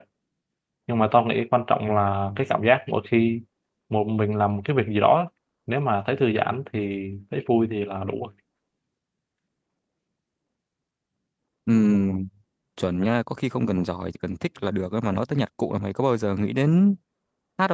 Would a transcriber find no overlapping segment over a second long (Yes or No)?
Yes